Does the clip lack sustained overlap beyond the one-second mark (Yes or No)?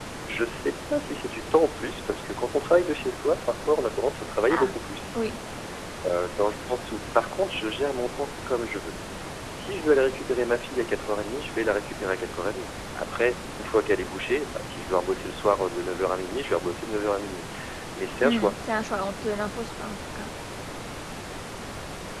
Yes